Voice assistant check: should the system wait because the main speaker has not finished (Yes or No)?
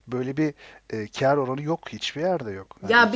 No